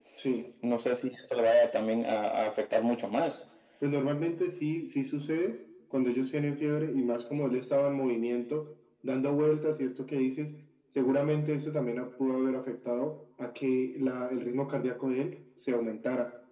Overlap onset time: none

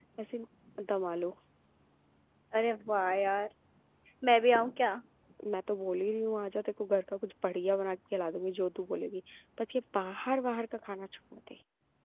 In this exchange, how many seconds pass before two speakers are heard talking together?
none

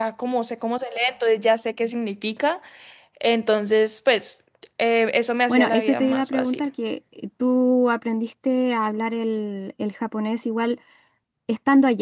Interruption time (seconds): 5.5 s

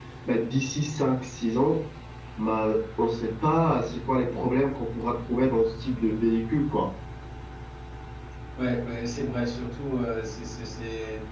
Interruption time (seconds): none

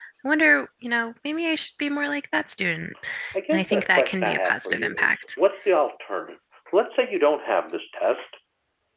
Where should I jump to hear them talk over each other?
3.5 s

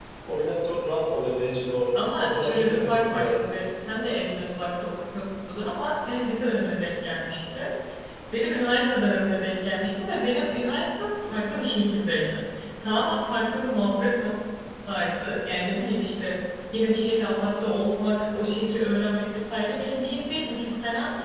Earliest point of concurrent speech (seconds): 1.9 s

